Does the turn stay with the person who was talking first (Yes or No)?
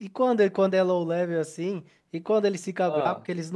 Yes